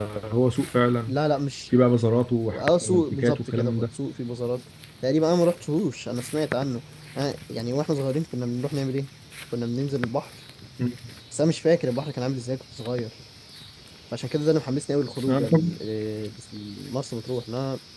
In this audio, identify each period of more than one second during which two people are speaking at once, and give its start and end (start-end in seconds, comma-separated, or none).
2.5-3.8